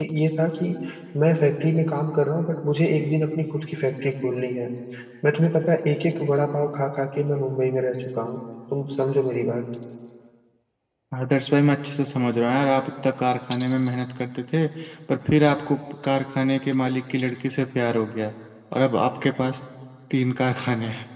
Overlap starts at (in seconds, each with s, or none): none